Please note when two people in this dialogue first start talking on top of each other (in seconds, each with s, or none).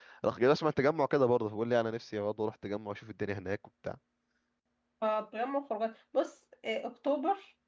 none